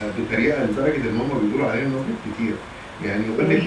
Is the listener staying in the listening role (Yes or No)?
Yes